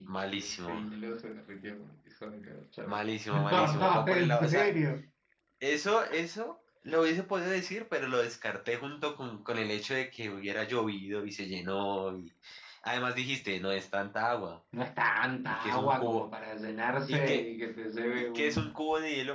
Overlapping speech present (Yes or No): Yes